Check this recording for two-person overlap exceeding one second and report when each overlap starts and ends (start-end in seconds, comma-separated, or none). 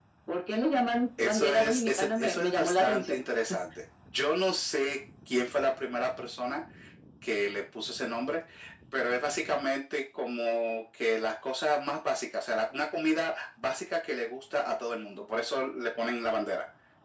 1.2-3.2